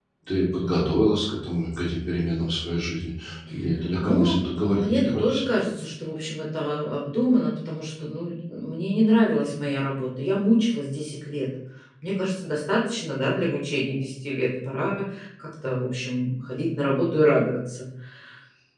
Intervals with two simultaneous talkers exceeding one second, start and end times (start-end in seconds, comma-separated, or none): 4.0-5.5